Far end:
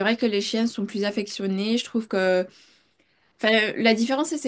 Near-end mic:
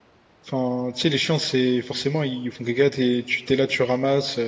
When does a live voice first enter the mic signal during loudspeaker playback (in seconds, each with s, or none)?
0.4 s